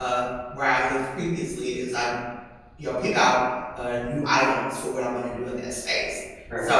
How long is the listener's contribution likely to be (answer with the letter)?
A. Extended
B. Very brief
B